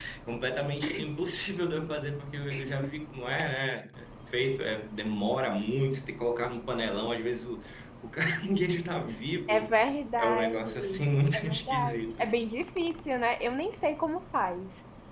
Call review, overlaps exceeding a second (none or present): present